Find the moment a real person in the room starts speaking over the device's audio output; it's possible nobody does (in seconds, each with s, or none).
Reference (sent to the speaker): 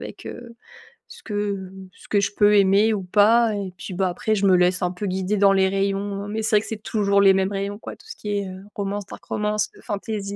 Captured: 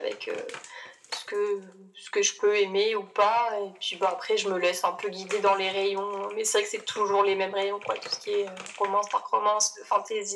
none